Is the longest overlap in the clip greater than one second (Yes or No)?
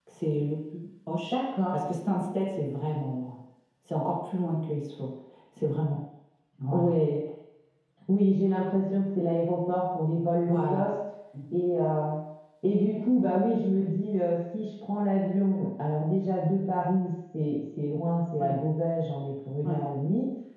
No